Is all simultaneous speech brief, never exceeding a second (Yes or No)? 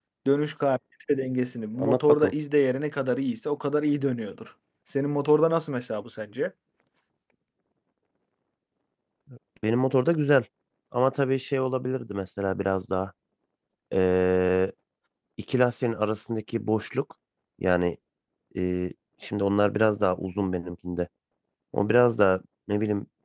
Yes